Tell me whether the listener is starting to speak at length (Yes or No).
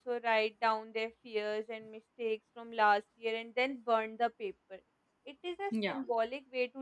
No